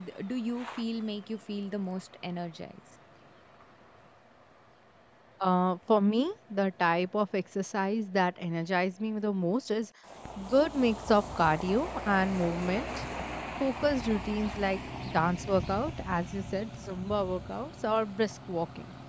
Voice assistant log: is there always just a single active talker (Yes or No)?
Yes